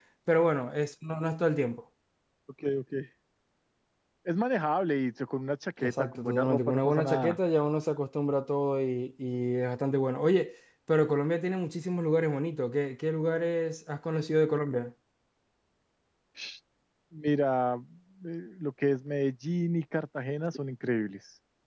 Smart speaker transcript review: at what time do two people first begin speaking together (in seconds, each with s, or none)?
5.8 s